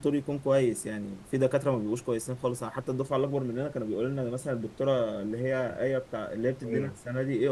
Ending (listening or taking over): listening